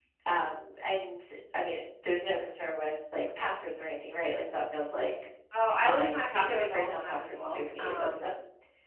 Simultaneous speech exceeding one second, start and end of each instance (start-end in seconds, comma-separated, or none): 5.8-8.2